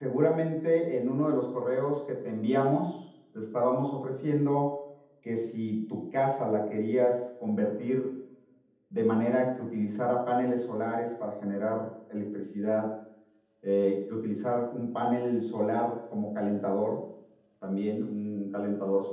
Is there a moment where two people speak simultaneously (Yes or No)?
No